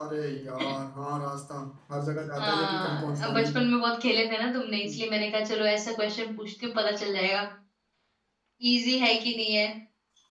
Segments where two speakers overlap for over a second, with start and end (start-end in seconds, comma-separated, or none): 2.4-3.6